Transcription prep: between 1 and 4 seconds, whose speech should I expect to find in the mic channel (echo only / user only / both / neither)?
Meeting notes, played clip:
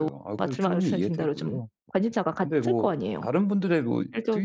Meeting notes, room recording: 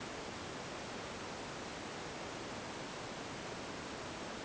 neither